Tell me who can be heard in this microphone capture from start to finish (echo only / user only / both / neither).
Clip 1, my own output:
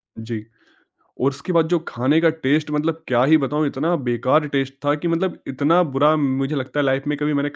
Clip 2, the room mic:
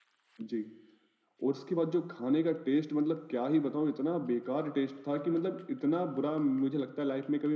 echo only